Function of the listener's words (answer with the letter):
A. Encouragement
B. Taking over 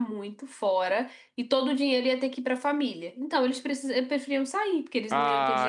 B